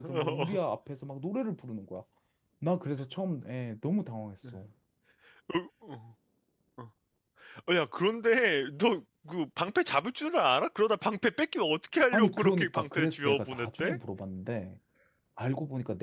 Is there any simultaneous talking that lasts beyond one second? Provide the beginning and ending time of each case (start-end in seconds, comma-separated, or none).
12.1-14.0